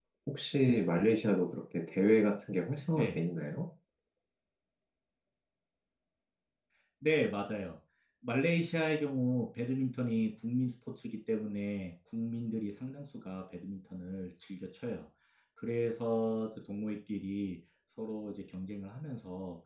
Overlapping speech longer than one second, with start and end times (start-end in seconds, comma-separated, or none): none